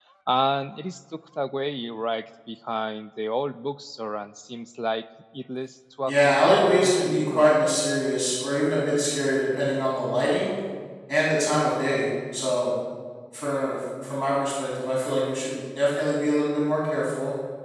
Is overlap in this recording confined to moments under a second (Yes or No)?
No